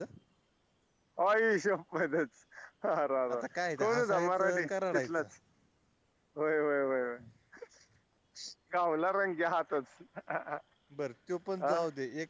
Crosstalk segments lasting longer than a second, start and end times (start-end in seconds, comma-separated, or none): 3.8-5.2